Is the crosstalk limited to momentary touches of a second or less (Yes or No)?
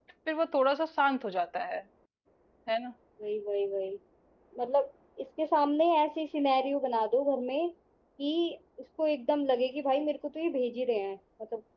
Yes